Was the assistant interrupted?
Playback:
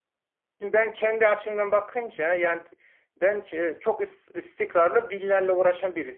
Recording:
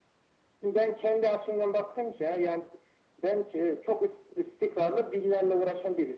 No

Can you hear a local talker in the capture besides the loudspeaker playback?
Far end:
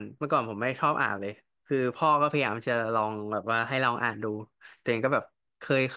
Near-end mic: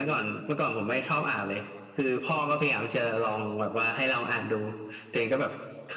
No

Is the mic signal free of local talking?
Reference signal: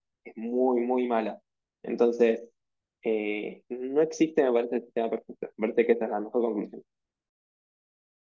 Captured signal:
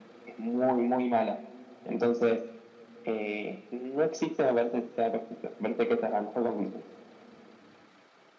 Yes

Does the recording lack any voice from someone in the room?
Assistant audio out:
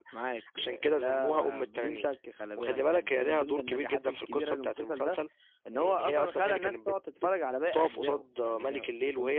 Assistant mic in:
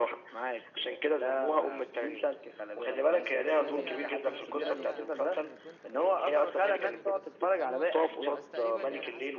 No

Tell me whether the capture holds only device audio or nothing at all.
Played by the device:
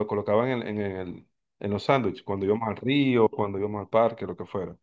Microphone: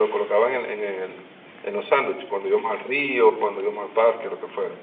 Yes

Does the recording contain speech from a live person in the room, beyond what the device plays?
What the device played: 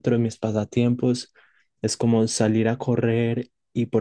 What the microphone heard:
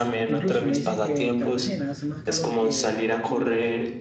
Yes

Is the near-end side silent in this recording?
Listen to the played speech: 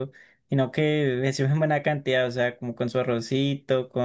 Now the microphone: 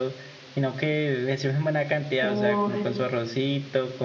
No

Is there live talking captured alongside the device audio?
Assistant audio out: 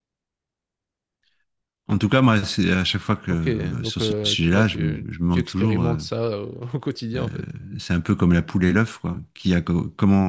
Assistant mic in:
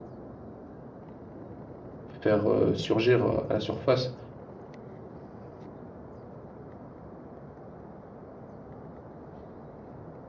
Yes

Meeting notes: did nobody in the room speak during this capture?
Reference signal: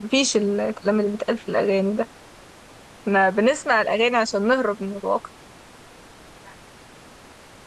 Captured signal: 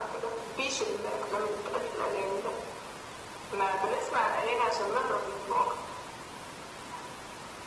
Yes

